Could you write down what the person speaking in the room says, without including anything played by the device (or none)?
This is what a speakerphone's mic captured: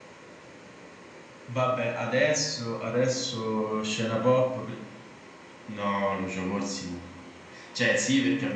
none